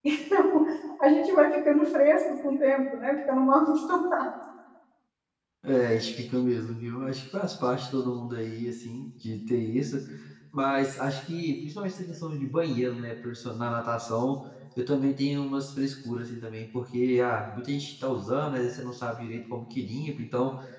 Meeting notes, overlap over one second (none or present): none